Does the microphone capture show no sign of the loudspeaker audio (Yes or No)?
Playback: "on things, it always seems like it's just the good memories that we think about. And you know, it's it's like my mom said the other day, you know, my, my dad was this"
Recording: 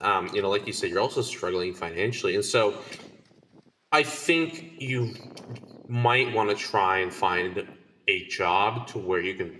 Yes